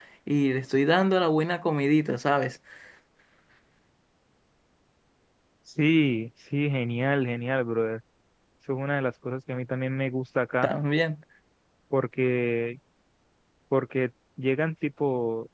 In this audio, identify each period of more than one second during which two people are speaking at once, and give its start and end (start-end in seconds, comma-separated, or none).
none